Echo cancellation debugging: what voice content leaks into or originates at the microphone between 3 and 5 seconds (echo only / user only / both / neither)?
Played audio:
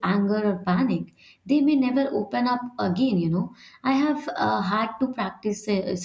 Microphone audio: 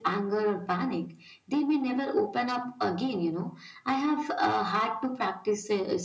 echo only